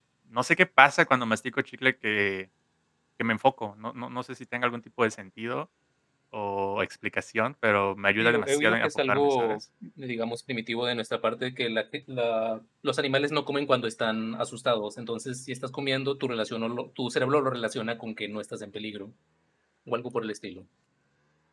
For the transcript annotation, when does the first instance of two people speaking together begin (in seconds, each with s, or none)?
8.2 s